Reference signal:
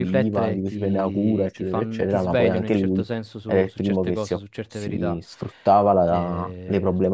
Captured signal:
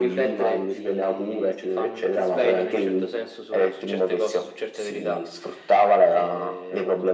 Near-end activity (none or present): none